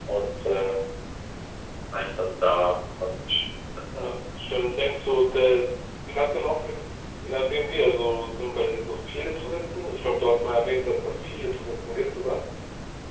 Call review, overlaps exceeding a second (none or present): none